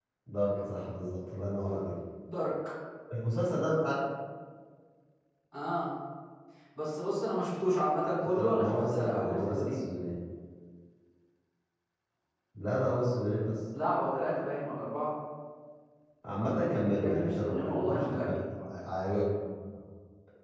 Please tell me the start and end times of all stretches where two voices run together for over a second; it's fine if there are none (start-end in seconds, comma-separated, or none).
8.4-9.8, 17.0-18.3